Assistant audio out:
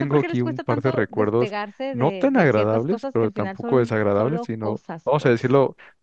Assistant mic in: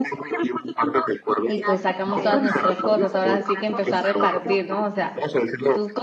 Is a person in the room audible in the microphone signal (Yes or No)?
Yes